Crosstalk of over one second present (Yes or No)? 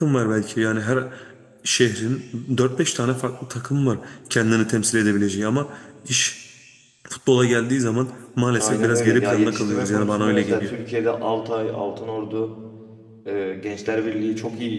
Yes